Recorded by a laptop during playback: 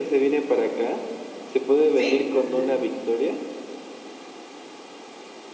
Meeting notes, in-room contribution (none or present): present